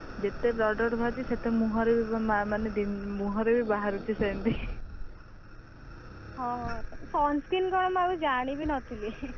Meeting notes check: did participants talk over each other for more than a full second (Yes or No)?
No